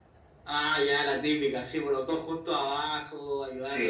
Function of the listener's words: taking over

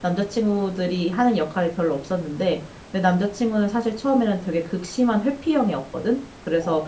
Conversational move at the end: listening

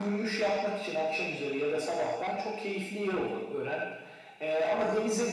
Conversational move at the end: listening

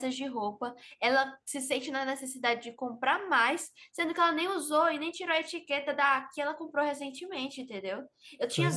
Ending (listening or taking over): listening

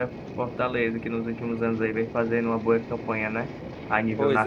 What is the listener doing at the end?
taking over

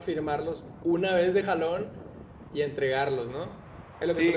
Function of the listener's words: taking over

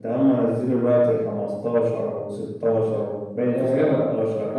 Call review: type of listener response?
taking over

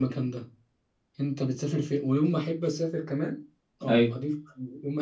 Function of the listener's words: listening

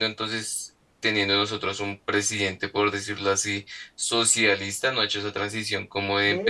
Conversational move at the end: taking over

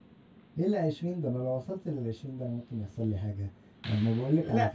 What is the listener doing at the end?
listening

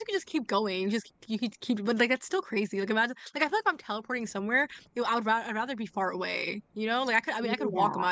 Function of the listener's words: listening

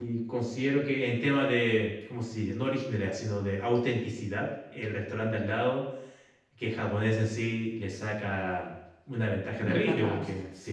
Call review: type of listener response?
listening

